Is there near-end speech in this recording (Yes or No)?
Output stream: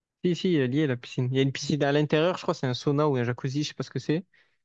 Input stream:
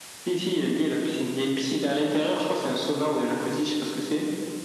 No